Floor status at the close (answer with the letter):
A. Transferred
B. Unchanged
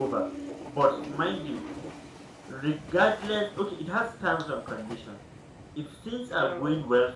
B